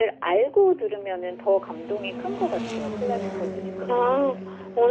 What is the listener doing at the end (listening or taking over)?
taking over